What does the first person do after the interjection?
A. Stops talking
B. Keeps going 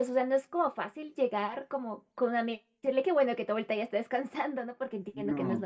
A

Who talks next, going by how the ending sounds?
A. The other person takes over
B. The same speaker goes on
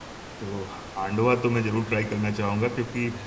B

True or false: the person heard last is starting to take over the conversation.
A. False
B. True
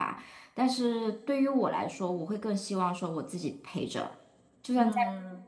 A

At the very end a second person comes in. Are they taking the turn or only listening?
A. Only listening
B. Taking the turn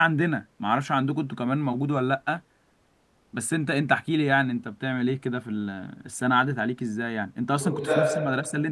A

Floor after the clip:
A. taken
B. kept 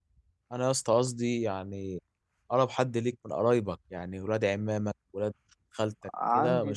A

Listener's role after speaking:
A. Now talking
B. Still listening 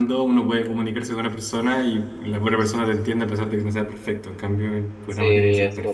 A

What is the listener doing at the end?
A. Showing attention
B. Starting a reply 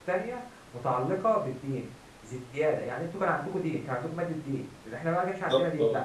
A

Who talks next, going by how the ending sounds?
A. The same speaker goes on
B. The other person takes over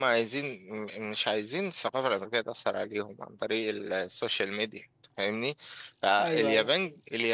A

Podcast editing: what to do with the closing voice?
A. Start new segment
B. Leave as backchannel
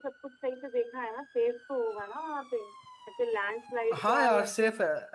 A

